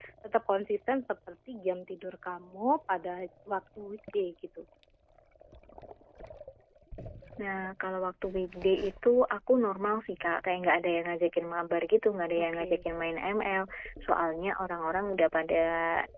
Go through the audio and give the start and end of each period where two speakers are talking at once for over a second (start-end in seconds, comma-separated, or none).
none